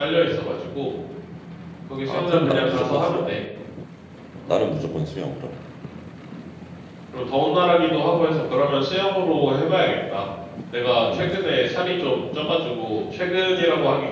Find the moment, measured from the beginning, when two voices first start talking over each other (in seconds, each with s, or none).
2.1 s